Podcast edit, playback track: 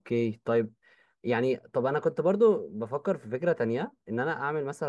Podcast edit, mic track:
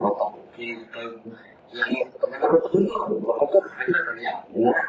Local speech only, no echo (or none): none